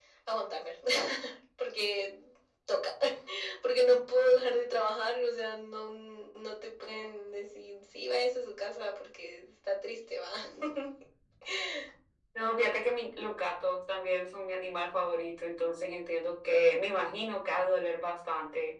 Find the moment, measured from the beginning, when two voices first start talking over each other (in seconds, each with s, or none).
none